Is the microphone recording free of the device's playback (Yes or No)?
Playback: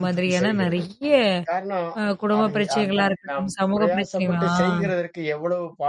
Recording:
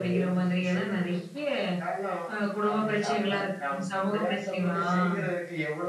No